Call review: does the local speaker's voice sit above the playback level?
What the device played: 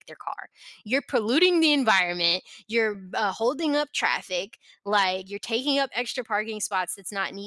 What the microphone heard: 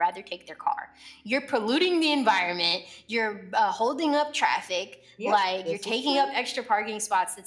No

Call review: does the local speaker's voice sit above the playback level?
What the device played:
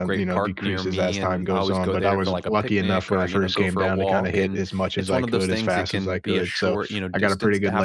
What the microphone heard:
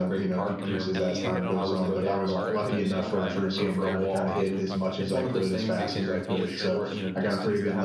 No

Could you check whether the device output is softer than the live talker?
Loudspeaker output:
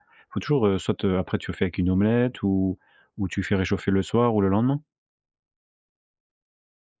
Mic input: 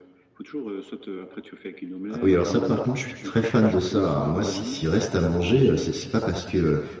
Yes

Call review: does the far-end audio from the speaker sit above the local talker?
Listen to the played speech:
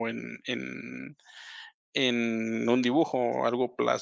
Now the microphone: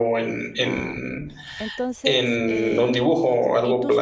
Yes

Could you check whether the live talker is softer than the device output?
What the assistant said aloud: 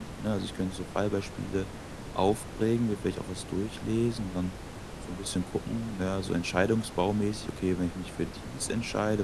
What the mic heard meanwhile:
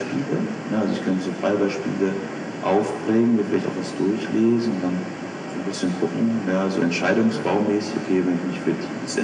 Yes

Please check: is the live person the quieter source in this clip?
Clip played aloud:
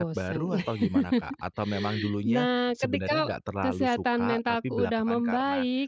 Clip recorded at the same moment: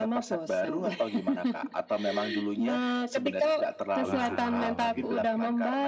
Yes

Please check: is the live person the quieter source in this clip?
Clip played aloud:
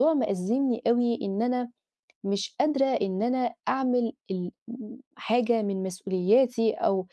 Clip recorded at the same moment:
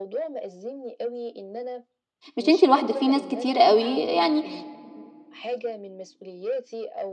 No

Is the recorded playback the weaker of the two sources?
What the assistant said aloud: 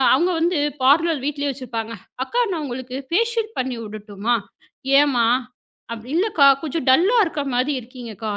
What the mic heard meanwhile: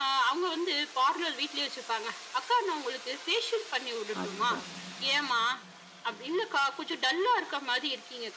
No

